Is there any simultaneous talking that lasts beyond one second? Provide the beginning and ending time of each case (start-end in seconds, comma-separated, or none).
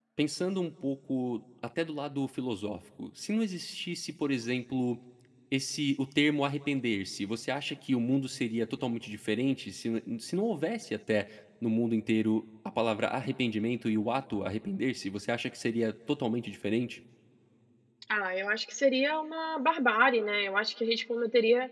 none